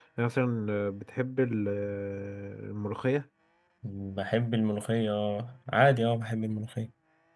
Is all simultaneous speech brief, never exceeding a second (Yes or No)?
Yes